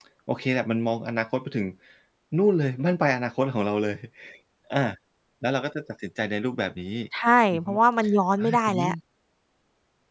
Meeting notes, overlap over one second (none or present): none